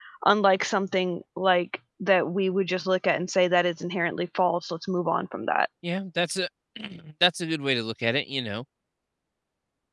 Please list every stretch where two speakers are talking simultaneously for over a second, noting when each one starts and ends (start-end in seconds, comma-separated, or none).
none